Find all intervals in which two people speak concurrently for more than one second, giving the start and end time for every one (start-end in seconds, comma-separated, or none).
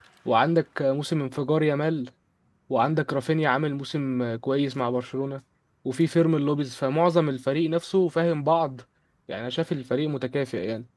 none